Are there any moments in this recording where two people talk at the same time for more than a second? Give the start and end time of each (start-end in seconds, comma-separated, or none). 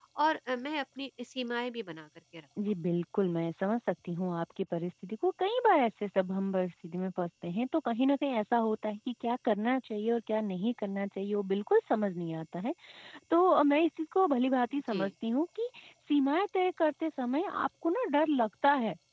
none